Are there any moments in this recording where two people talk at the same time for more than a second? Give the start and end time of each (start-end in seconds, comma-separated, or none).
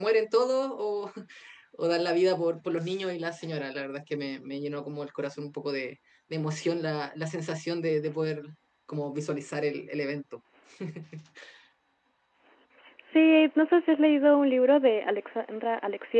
none